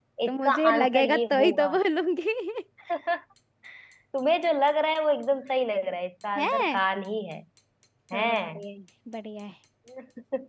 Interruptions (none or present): present